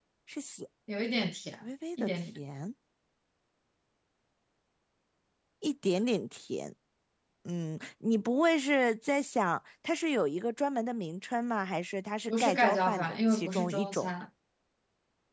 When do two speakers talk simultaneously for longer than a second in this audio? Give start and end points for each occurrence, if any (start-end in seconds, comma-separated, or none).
12.3-14.1